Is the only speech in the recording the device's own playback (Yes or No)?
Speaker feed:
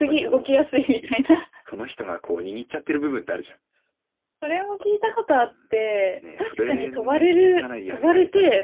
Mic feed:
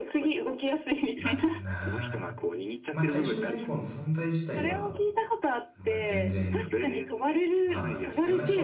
No